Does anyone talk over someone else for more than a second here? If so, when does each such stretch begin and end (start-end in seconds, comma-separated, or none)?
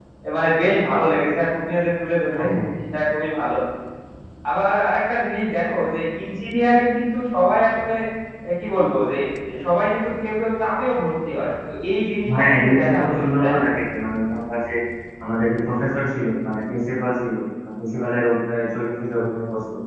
12.4-13.6